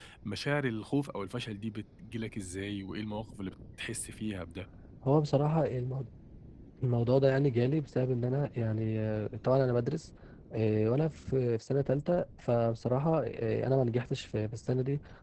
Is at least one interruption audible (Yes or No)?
No